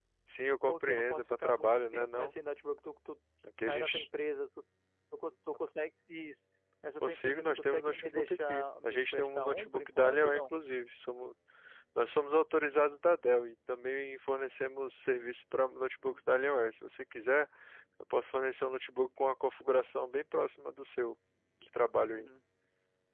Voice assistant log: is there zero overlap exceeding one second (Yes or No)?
No